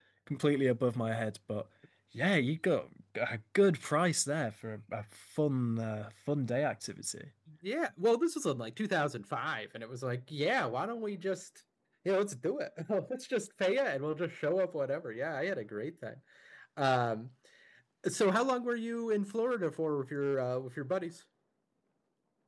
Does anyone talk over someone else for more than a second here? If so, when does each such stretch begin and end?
none

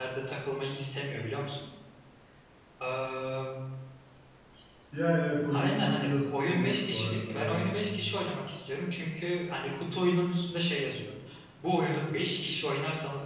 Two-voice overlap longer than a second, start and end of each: 5.5-7.7

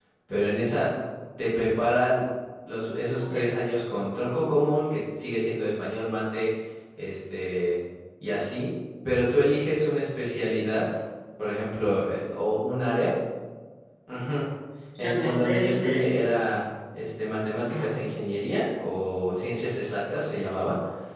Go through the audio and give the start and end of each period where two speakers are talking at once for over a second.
15.0-16.2

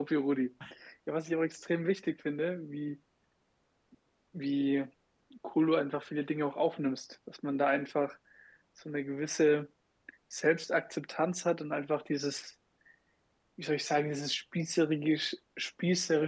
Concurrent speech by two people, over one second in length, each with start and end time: none

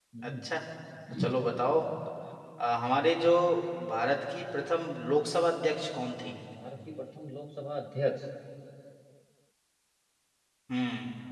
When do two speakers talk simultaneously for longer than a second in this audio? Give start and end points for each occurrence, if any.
none

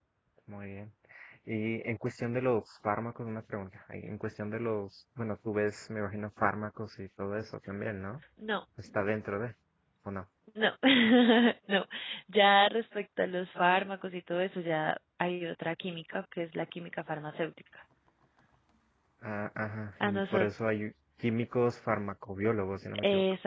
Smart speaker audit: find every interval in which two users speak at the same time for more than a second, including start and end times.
none

